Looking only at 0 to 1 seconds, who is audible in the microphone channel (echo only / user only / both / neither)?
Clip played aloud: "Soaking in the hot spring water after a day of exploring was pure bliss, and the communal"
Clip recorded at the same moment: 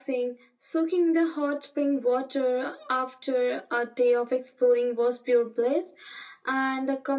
echo only